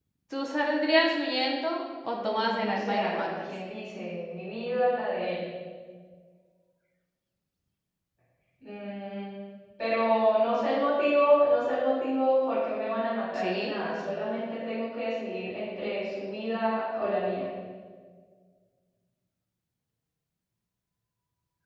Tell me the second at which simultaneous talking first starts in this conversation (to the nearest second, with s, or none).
2 s